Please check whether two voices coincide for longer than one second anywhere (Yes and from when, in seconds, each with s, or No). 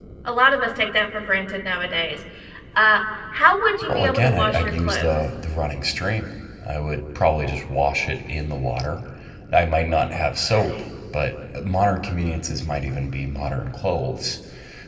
Yes, from 3.8 s